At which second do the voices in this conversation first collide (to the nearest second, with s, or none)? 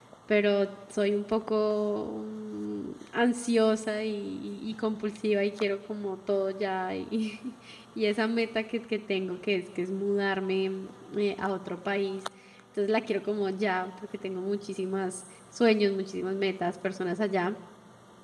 none